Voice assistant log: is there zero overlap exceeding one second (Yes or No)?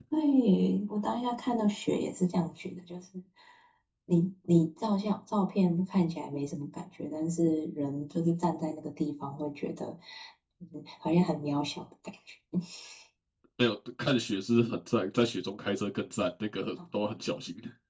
Yes